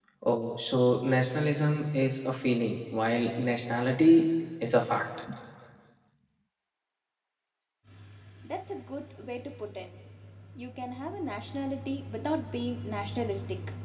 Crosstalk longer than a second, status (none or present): none